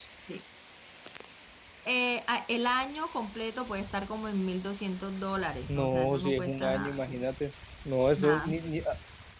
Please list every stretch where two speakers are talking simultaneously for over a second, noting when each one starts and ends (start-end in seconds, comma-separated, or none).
5.7-7.3